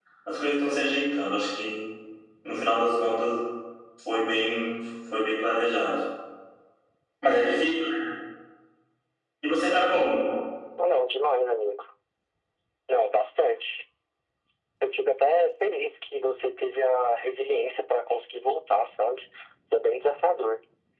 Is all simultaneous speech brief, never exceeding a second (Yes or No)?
Yes